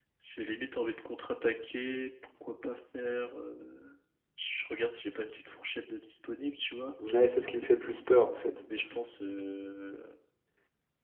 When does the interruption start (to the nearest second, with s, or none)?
none